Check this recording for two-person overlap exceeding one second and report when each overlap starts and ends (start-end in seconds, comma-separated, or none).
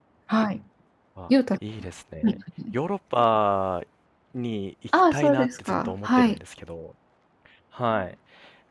4.9-6.4